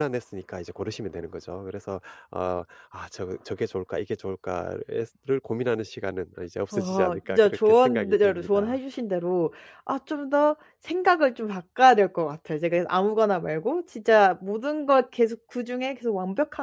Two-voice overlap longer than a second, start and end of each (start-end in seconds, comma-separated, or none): 6.7-8.8